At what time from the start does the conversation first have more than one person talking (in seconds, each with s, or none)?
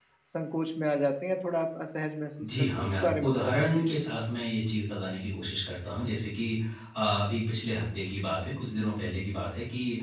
2.4 s